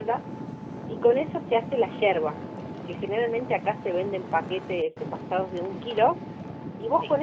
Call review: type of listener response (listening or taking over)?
listening